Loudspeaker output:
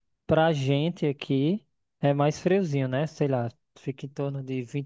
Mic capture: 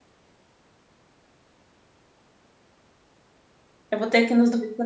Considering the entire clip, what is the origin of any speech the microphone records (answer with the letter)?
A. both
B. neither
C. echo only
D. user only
D